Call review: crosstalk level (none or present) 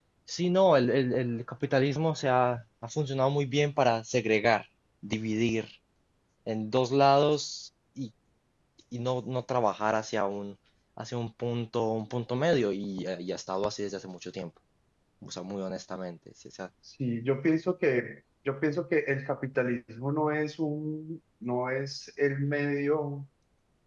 none